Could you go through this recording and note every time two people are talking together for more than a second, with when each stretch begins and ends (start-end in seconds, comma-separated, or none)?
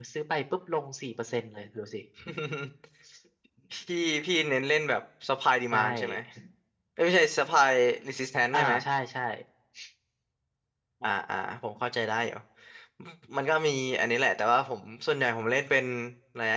none